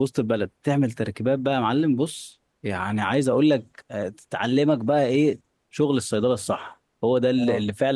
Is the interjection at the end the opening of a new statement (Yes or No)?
No